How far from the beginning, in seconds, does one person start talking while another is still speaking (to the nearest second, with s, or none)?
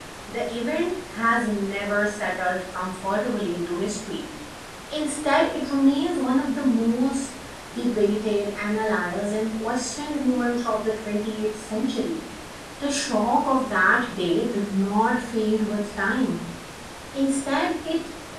none